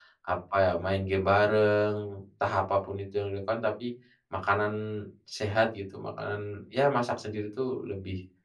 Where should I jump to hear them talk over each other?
none

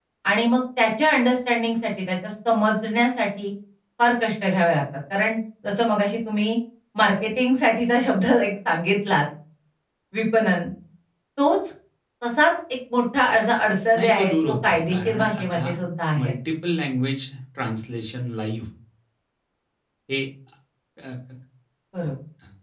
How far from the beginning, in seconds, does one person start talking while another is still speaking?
13.9 s

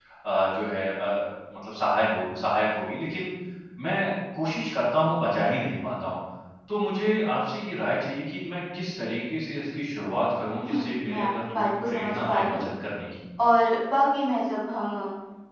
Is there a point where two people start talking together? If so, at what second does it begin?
10.6 s

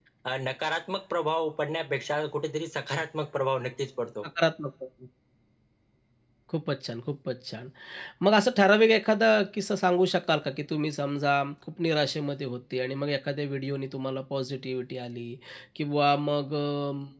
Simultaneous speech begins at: none

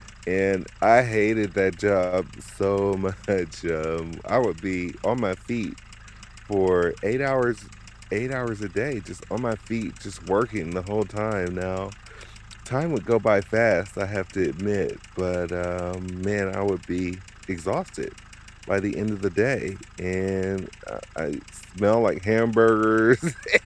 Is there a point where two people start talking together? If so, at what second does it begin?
none

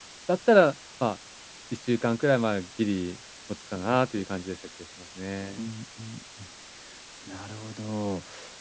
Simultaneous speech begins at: none

